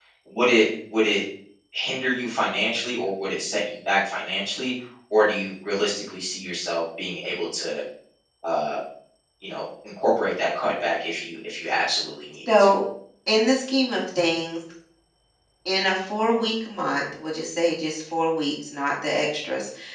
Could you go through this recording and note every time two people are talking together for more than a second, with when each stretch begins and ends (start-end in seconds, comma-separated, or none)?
none